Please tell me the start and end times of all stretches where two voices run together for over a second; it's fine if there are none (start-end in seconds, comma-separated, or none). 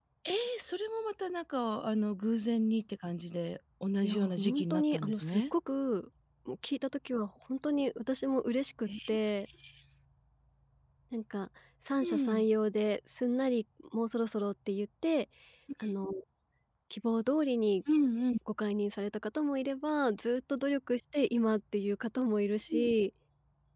4.0-5.4